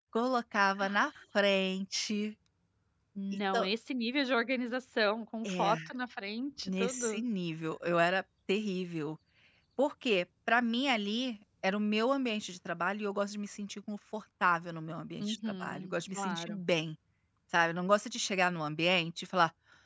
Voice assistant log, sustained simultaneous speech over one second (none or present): present